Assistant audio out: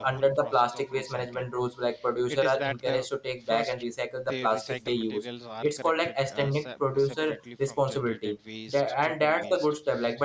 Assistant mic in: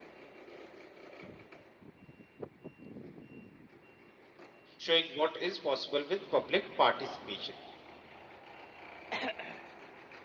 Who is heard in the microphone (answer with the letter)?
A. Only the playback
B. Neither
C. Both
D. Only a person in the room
D